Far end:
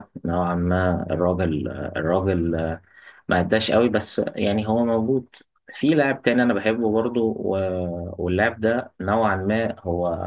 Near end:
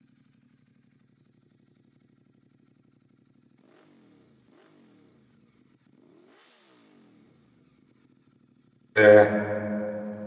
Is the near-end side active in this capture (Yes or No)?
Yes